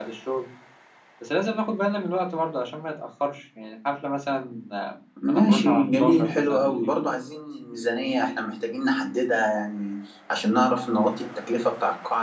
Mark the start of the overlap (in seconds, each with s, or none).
5.2 s